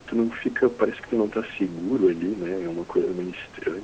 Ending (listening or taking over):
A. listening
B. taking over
A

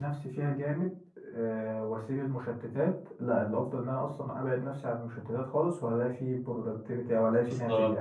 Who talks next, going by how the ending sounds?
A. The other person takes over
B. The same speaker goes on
A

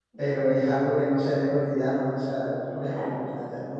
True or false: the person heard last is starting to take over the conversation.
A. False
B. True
A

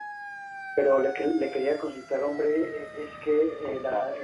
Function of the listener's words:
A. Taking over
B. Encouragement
B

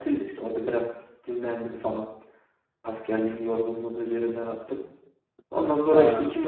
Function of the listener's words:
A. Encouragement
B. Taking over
A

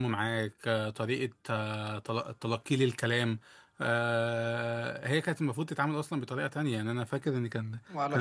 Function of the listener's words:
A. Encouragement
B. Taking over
A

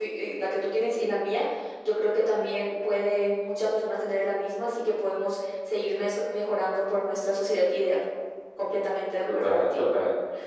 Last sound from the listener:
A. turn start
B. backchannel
A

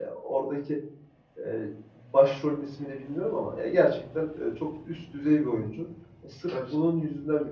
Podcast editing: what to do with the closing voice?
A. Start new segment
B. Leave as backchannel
B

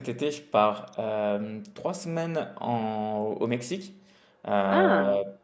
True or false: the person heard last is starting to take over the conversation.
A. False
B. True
A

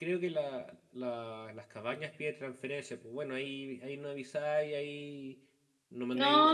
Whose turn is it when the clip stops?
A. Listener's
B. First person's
B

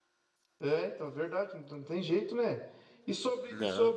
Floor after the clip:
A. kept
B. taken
A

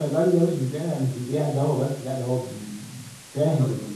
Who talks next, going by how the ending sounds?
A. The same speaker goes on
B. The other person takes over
B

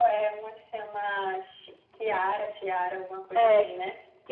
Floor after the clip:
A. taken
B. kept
A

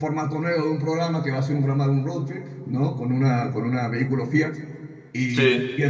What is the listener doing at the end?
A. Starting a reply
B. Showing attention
B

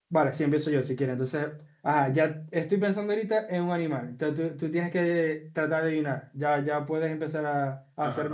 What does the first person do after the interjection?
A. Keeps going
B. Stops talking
B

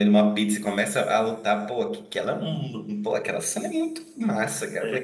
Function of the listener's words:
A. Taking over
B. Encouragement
B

